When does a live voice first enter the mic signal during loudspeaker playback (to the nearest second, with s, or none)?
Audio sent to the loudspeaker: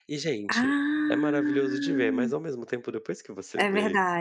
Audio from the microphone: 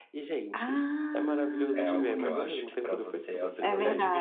2 s